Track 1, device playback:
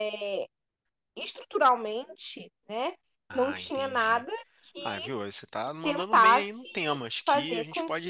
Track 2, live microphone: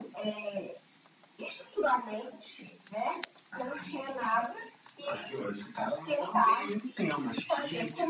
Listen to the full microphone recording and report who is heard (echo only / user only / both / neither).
echo only